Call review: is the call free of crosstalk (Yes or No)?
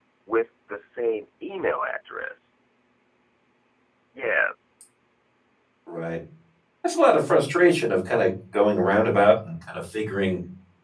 Yes